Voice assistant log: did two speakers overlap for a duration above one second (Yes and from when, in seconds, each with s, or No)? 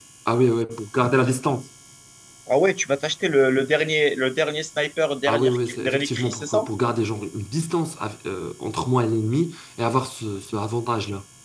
Yes, from 5.3 s